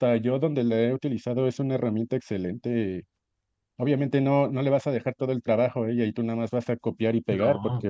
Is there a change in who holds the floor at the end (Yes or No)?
No